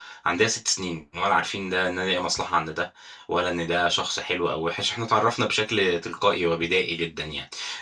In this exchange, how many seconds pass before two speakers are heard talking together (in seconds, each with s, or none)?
none